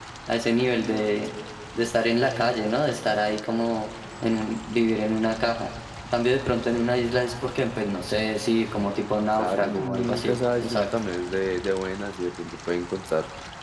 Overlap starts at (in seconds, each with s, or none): 9.3 s